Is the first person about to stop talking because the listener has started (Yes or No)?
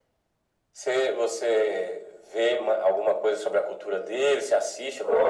Yes